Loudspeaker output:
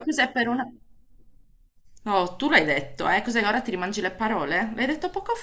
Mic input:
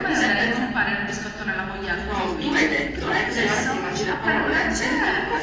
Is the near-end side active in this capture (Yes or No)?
Yes